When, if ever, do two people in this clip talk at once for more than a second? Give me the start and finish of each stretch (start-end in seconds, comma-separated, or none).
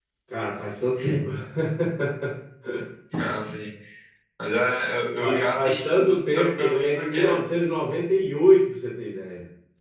5.2-7.4